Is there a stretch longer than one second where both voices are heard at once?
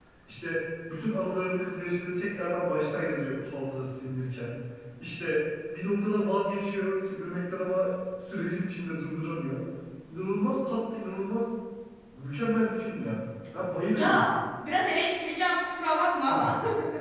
No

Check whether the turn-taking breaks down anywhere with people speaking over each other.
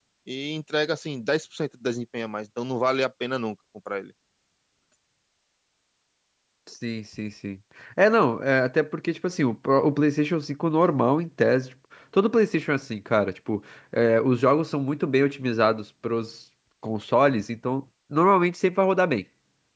No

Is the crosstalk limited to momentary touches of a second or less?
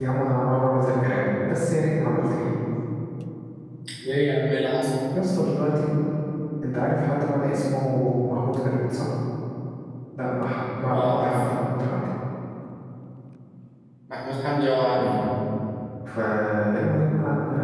Yes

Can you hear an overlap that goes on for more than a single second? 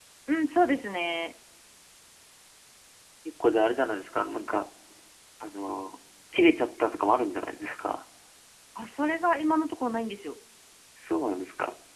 No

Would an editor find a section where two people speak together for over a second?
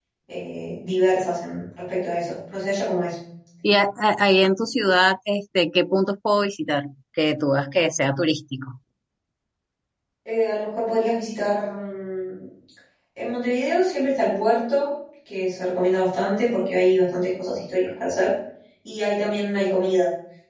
No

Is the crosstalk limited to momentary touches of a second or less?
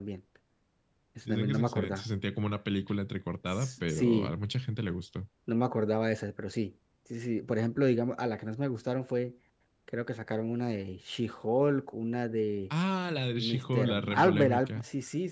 No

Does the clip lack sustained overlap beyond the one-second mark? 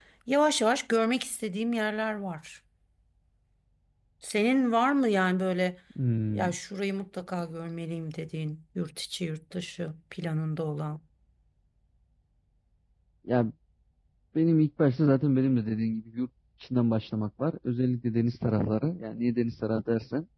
Yes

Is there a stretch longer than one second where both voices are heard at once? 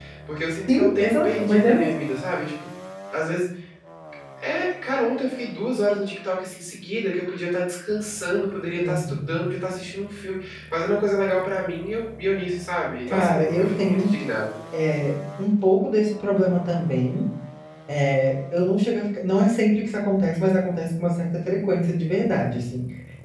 Yes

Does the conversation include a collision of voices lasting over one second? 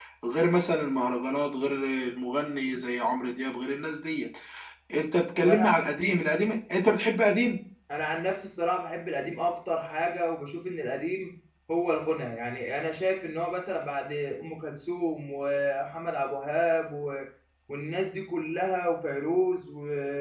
No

